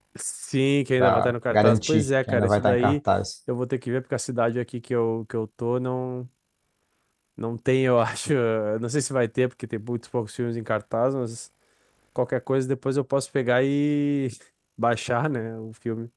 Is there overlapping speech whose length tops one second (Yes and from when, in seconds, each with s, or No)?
Yes, from 1.0 s